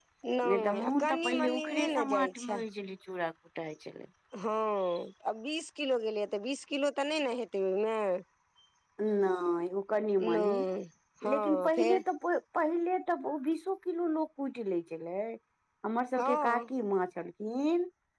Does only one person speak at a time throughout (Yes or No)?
No